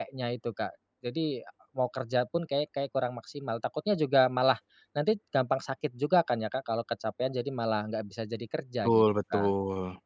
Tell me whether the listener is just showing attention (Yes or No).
No